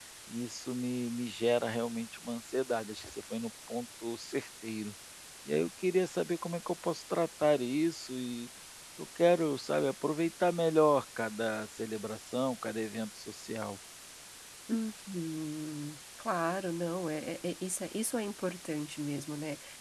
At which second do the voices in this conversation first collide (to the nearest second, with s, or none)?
none